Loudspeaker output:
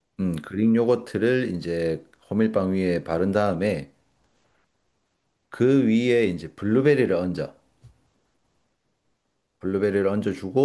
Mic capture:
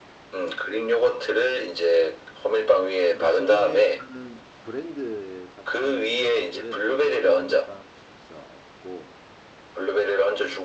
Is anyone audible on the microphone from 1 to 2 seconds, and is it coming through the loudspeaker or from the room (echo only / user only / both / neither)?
echo only